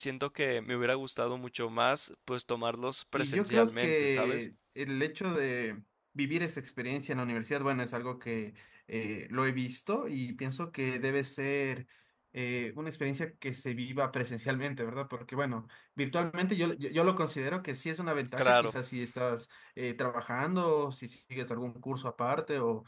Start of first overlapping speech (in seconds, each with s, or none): 3.1 s